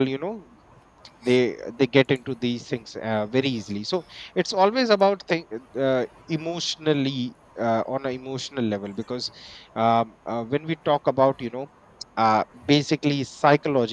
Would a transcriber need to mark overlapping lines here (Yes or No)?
No